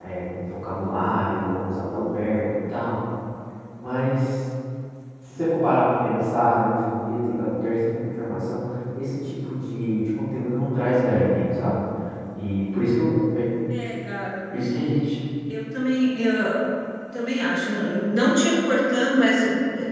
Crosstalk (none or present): none